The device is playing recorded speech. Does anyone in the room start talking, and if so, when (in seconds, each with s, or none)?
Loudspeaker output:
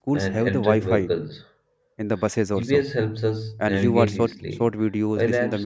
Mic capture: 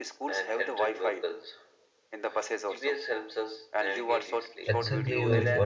4.7 s